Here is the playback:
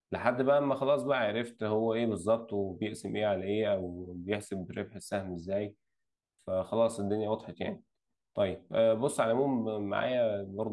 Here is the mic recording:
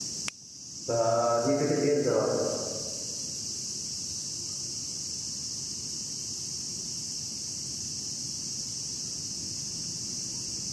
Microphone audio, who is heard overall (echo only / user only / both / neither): user only